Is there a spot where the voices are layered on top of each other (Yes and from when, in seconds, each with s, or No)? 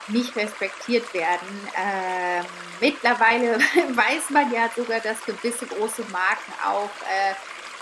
No